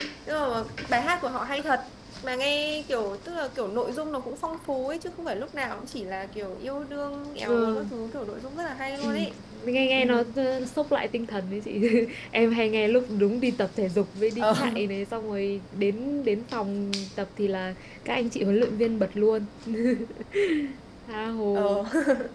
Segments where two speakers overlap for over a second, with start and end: none

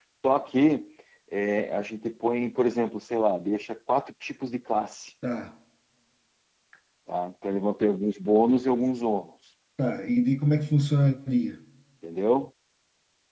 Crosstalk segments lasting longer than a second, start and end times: none

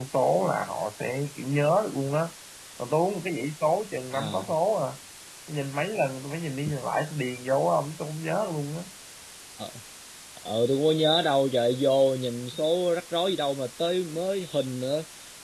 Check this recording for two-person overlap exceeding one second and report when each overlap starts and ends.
none

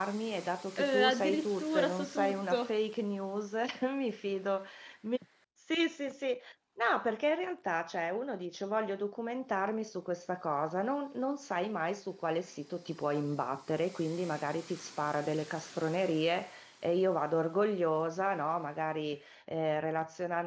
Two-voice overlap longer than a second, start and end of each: 0.8-2.8

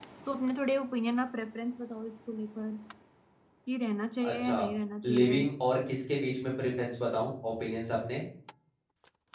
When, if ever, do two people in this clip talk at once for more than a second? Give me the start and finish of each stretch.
none

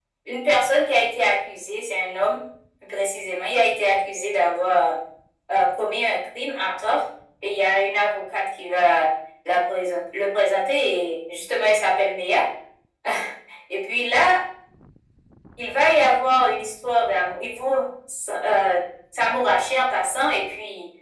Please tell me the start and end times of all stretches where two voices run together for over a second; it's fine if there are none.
none

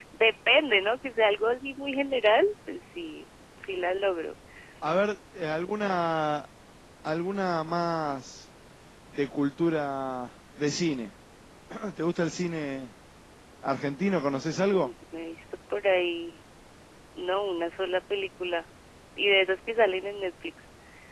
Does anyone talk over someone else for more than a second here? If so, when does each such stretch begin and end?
none

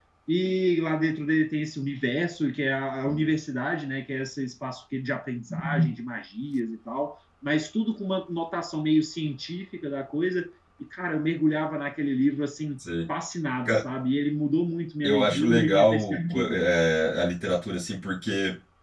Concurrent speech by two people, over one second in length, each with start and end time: 15.0-16.6

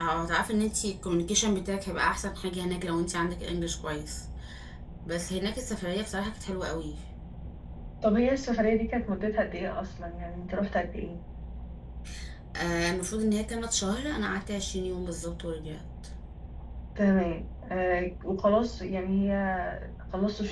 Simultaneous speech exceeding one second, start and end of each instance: none

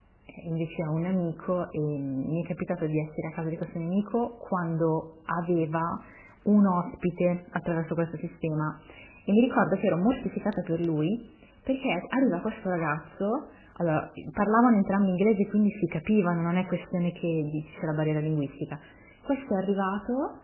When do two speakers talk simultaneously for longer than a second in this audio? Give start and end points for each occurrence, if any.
none

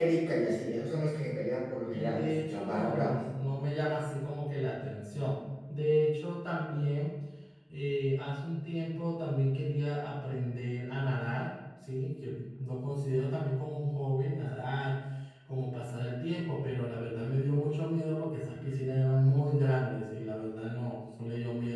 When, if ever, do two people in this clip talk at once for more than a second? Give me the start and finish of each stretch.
1.9-3.2

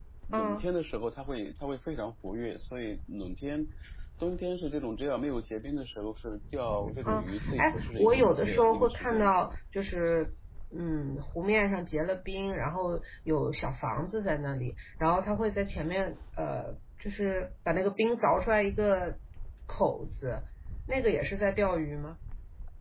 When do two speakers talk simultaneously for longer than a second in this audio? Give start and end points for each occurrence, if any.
7.0-9.6

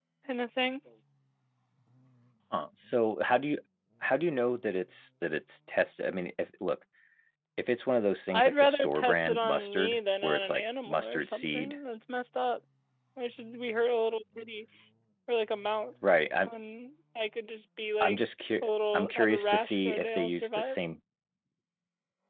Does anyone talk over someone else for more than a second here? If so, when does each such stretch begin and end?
8.3-11.8, 18.6-20.8

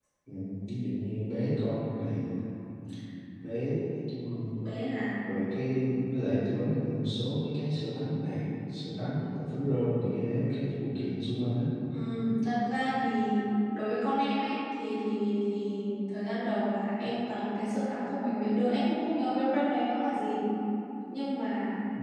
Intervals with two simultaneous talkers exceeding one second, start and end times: none

